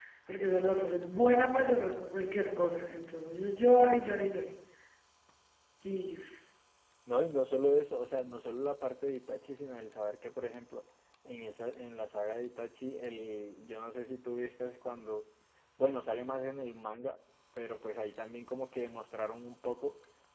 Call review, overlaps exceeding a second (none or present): none